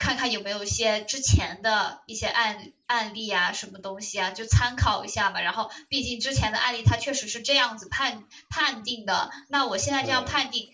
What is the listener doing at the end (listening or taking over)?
listening